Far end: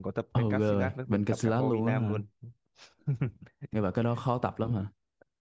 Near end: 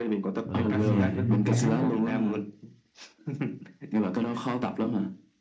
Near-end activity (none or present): present